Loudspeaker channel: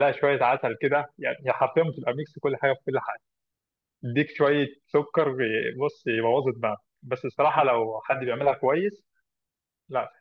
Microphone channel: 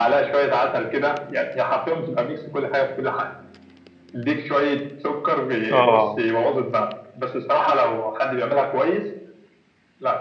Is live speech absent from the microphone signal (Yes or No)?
No